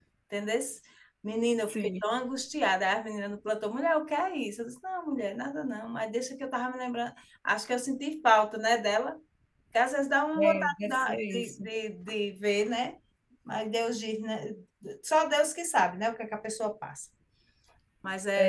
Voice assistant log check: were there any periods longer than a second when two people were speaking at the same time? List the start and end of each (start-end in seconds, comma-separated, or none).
10.4-11.7